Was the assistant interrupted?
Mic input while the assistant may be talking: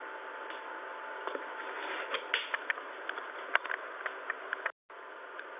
No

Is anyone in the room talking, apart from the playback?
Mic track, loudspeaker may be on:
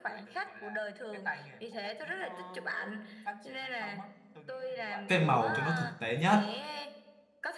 Yes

